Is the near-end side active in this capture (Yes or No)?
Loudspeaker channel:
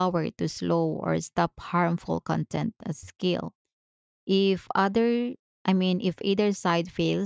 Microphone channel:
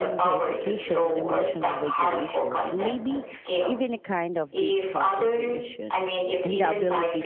Yes